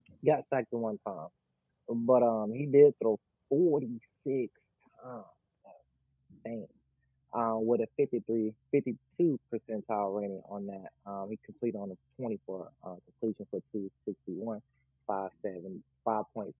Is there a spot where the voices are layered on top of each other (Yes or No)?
No